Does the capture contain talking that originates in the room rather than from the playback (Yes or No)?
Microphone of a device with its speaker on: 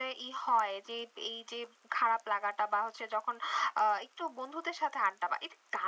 No